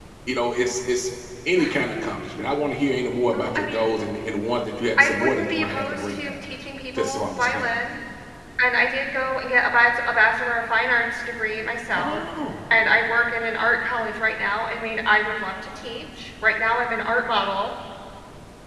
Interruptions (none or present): present